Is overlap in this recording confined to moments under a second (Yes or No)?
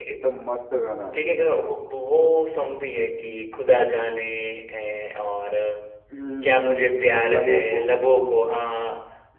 No